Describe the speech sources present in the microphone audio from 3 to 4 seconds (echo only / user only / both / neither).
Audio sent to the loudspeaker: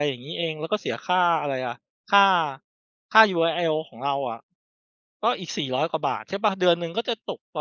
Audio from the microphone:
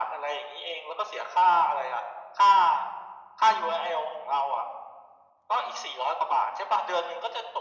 echo only